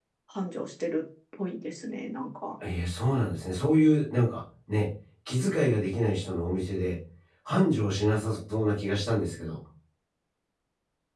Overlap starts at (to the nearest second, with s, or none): none